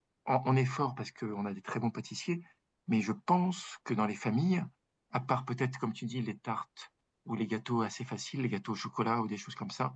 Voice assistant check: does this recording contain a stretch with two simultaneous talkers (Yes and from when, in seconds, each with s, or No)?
No